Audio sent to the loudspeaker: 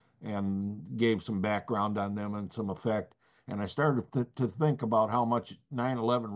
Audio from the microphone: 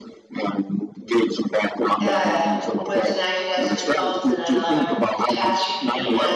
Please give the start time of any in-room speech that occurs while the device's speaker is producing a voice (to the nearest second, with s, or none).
2 s